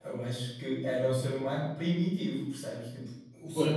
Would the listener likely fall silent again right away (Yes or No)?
No